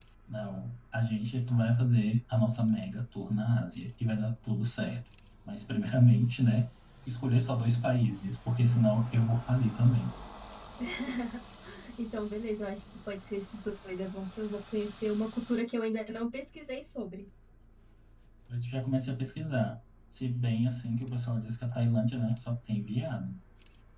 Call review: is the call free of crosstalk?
Yes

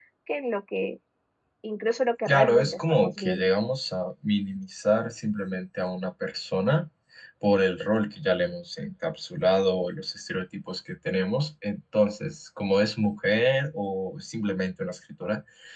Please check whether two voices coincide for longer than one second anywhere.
Yes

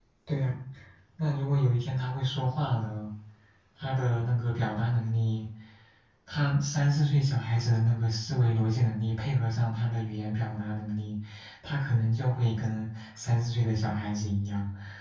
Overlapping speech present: No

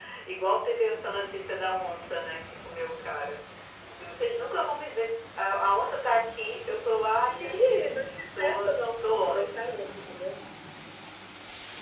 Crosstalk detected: Yes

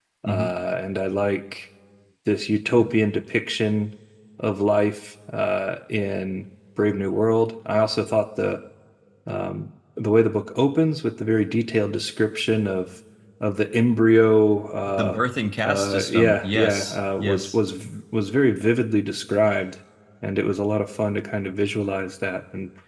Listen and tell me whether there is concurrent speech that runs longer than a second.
Yes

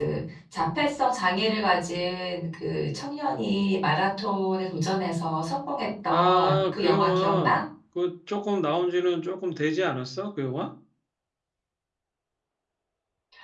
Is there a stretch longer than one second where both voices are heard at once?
Yes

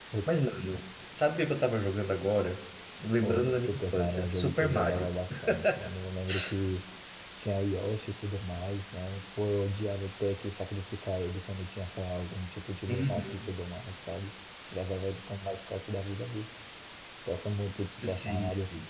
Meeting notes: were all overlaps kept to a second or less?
No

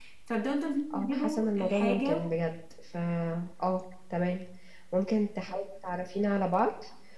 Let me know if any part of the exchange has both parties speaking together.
Yes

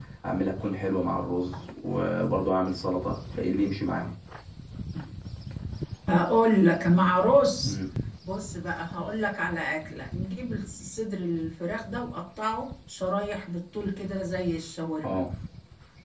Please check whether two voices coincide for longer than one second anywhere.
No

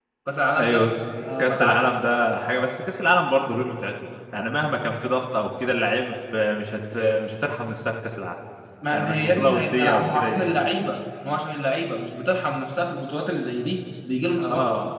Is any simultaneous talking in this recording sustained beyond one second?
Yes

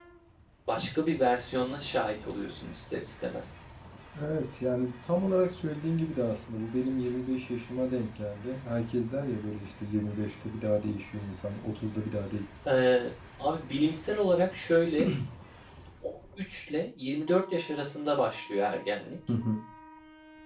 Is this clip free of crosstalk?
Yes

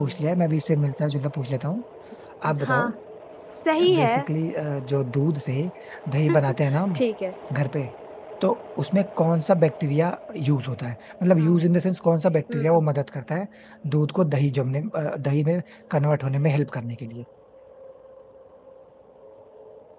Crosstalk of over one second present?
No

